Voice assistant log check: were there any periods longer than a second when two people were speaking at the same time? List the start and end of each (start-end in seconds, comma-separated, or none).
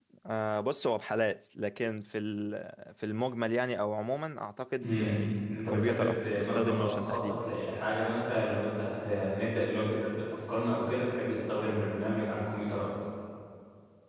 4.8-7.4